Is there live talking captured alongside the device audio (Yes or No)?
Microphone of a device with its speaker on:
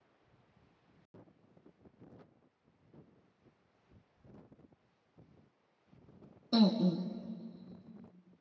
Yes